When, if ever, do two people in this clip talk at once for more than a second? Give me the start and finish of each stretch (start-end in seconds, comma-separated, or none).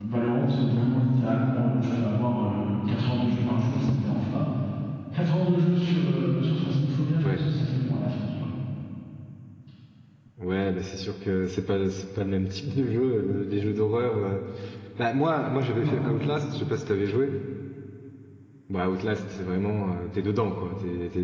none